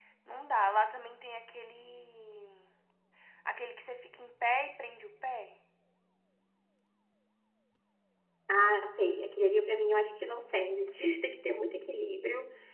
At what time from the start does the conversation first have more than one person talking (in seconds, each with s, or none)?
none